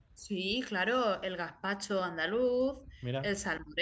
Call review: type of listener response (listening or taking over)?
listening